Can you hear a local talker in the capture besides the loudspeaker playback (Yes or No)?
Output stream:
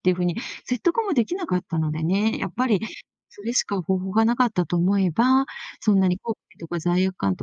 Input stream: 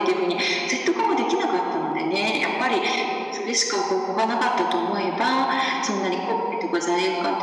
No